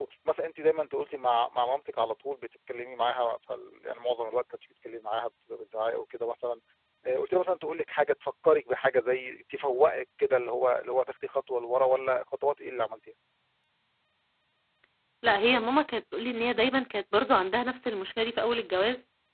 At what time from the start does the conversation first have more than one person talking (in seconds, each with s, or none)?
none